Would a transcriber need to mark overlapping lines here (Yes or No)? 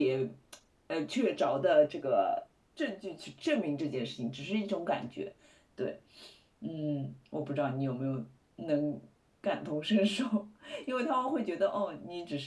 No